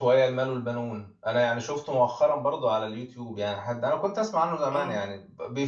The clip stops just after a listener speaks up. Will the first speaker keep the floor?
Yes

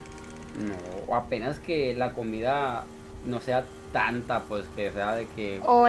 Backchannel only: No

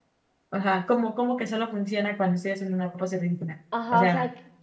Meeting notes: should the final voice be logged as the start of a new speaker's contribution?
Yes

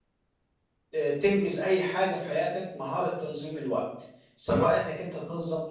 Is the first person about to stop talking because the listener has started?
No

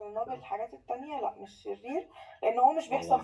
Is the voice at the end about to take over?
No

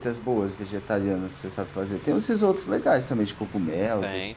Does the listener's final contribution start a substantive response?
Yes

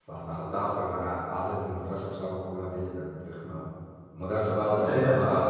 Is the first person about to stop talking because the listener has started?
No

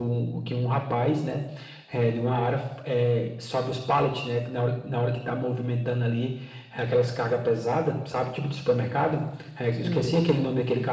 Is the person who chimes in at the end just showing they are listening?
Yes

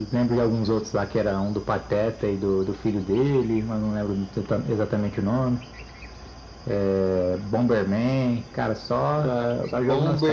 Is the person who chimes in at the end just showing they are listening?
No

